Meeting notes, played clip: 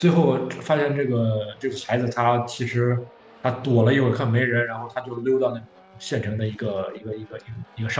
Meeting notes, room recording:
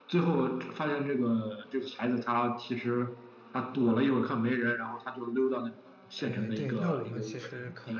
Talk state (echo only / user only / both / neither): both